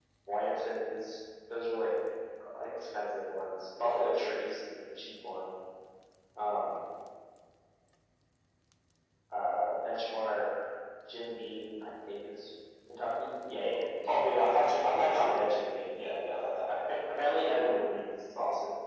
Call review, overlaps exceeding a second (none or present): present